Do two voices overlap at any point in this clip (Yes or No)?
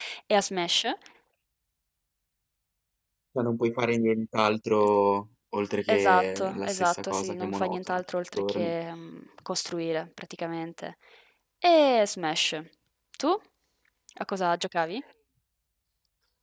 Yes